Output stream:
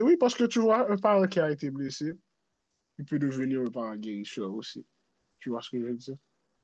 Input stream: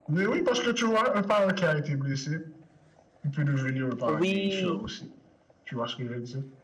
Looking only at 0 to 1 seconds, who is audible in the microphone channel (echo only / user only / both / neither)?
echo only